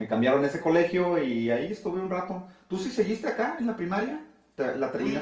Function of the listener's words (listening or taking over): taking over